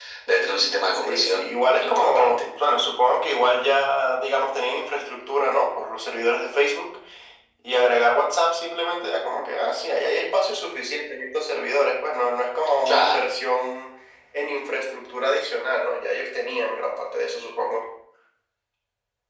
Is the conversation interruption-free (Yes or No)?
No